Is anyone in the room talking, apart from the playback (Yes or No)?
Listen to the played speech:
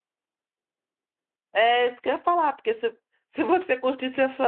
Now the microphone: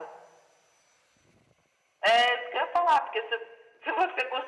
No